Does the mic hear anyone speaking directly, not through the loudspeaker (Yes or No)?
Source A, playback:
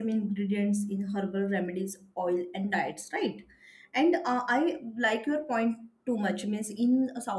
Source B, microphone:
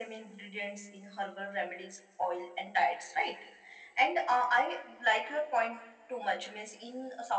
No